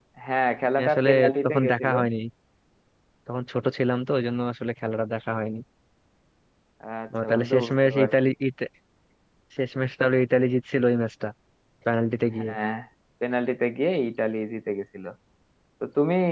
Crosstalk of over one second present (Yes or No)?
Yes